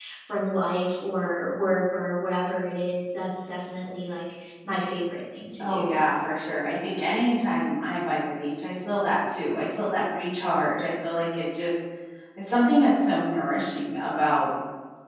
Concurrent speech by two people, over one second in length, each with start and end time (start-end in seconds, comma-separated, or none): none